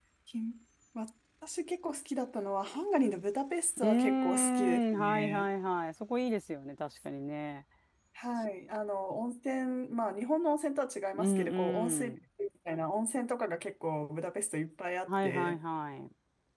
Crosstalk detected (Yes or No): Yes